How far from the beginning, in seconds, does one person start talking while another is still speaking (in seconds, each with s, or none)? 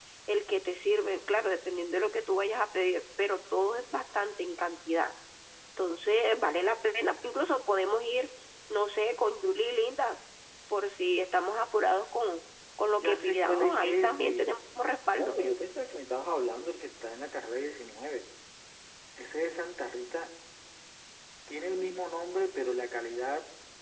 13.0 s